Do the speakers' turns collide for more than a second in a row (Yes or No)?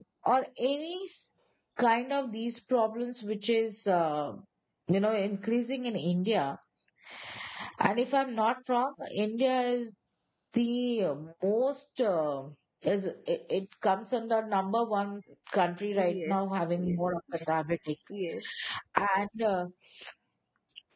Yes